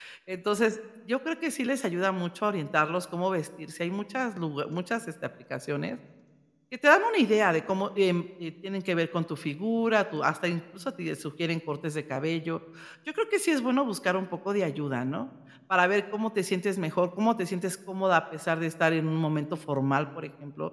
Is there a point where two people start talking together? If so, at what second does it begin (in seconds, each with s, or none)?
none